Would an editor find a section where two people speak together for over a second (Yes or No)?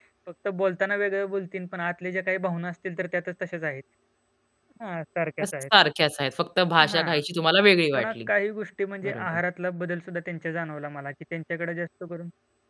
No